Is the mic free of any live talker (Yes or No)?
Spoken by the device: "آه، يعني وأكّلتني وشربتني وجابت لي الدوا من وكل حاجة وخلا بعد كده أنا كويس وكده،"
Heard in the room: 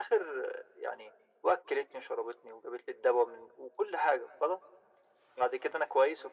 Yes